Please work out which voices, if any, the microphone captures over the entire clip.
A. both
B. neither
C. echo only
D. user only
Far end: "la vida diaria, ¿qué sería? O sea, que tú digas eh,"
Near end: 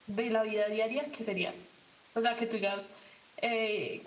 C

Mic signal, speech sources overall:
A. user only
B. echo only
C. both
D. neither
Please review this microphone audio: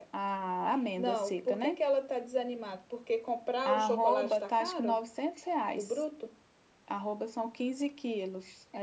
C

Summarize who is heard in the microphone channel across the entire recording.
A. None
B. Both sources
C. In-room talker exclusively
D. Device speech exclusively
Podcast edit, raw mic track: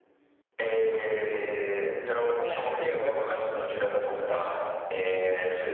B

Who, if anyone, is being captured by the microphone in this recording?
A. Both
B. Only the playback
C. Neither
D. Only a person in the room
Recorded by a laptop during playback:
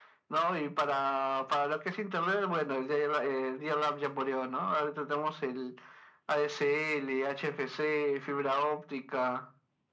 B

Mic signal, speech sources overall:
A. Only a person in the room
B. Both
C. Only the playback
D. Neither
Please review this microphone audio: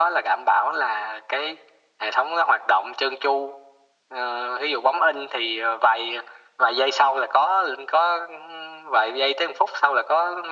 C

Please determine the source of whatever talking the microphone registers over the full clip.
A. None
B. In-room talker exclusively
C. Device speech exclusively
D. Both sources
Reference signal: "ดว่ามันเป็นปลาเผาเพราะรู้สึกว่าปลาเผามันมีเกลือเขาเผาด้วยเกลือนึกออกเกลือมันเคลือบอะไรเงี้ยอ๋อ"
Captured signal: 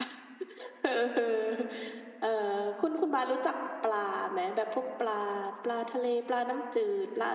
B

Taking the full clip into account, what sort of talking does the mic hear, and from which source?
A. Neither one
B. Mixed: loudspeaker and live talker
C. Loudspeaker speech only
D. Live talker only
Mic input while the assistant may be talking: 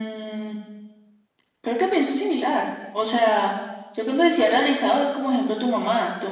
C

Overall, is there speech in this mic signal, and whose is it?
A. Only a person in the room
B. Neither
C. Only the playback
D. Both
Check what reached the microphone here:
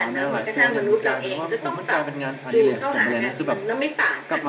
D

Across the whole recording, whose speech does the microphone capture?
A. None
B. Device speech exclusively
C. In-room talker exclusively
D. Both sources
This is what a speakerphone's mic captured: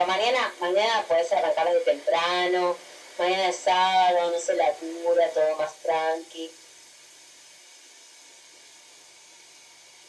B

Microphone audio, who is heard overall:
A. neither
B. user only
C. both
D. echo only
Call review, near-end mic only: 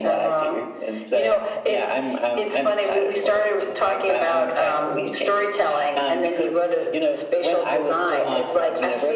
D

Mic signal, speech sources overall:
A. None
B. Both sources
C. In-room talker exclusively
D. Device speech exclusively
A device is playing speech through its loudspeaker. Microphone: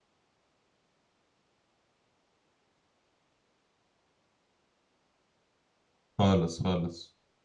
C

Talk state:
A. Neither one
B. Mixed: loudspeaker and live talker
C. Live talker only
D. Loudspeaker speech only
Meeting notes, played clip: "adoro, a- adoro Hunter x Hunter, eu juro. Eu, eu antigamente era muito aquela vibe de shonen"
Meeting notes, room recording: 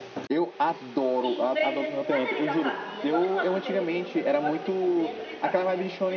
B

